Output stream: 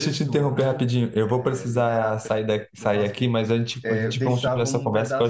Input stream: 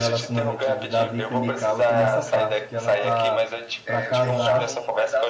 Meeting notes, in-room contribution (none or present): present